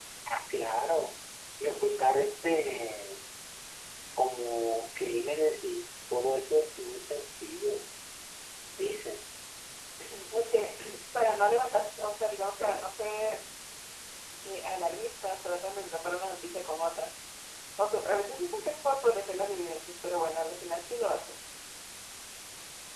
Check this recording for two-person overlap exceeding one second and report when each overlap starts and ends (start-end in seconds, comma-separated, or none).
none